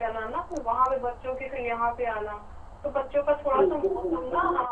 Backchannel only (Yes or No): Yes